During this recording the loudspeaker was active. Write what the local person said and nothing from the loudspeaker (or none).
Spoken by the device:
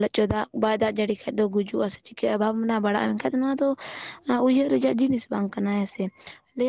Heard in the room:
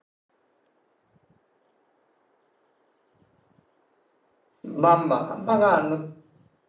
ᱵᱟᱝ ᱵᱟᱝ ᱵᱟᱝᱟ ᱱᱚᱛ